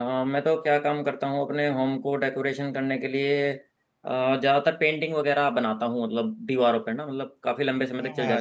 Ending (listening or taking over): taking over